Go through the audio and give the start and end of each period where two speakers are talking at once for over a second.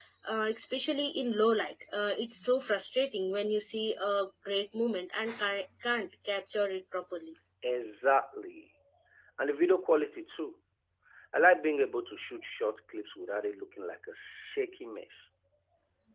none

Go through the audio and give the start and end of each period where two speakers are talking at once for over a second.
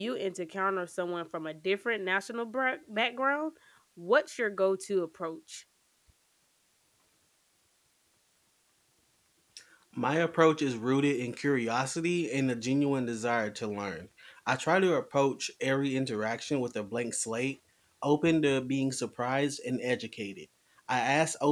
none

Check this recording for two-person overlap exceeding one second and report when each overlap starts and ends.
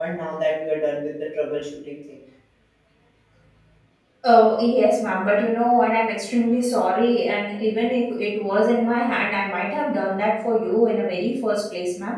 none

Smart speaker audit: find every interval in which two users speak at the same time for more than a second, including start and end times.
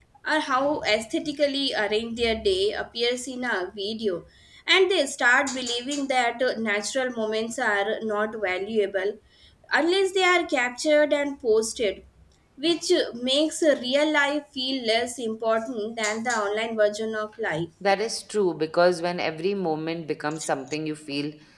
none

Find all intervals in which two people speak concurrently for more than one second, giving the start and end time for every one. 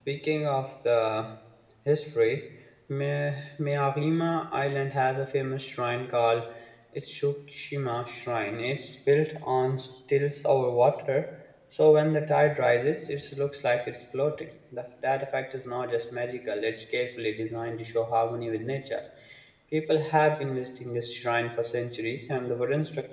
none

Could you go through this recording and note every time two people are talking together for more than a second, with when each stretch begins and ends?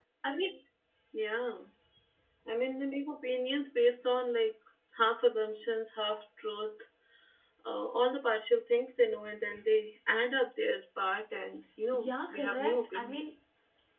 11.9-13.3

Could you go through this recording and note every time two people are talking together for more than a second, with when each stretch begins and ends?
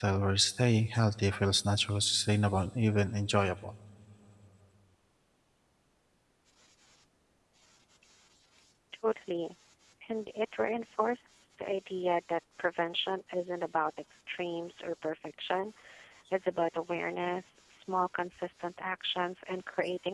none

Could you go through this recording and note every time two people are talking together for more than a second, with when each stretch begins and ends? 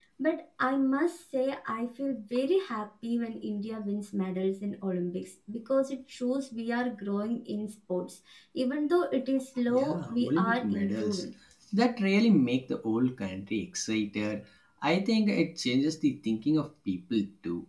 9.7-11.2

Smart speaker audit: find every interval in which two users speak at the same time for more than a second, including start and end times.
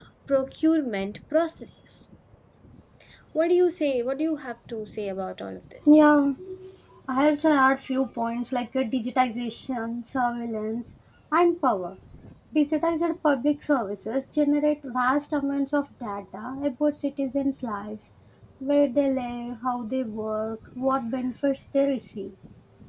none

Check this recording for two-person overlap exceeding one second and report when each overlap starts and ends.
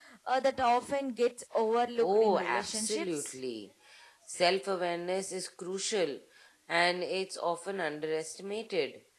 2.0-3.4

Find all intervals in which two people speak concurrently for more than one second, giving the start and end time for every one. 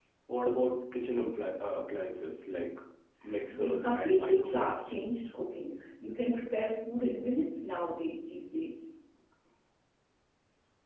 3.5-4.9

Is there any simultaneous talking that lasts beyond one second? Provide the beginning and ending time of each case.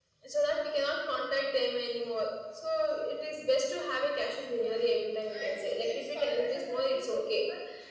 5.3-7.4

